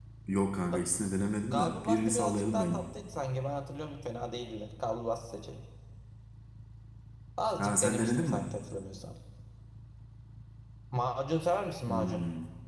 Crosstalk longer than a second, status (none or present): present